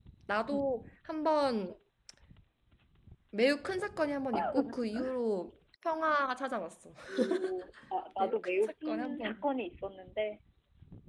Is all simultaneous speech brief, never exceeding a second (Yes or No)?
No